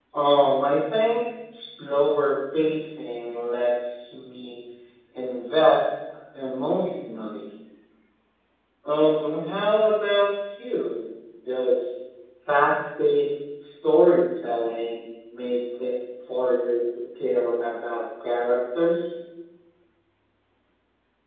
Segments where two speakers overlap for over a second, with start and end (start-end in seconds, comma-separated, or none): none